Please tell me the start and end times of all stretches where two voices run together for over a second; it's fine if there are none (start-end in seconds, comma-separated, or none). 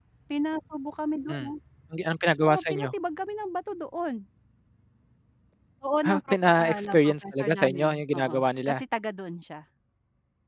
6.1-8.8